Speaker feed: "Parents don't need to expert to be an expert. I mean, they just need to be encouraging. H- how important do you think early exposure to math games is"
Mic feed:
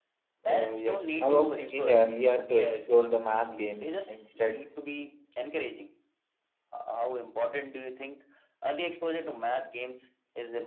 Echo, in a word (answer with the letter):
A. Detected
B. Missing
A